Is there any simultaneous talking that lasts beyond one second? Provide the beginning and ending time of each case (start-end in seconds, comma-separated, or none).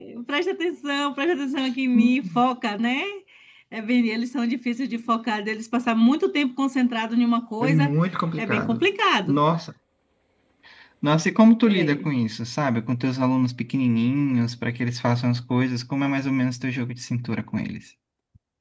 none